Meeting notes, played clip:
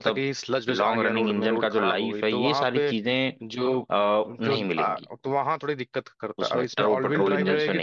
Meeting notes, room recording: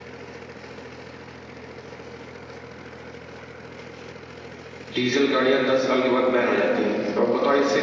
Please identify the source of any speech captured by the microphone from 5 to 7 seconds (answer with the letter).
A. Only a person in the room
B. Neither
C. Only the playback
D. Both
A